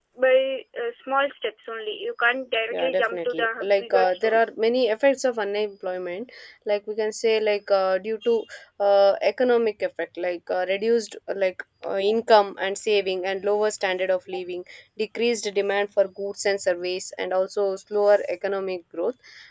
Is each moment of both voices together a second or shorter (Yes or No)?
No